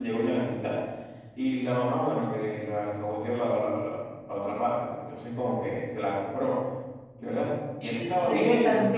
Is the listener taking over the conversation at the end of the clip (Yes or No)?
Yes